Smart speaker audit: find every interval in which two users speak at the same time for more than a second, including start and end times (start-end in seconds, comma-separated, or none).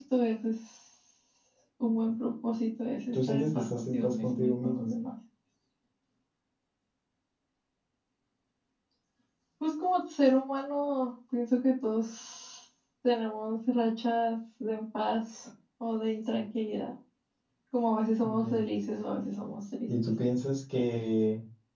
3.1-4.9